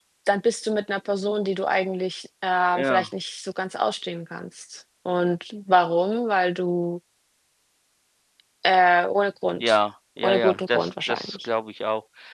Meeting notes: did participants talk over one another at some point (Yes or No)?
Yes